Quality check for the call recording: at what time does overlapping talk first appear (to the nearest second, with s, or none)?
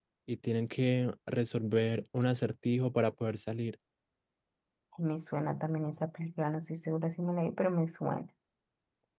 none